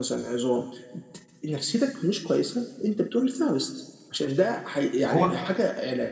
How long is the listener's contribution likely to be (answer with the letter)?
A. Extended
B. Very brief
B